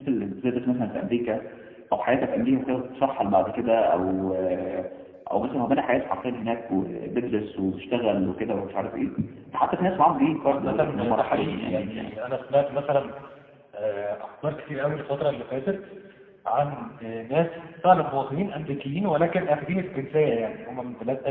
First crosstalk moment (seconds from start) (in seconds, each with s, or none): 10.5 s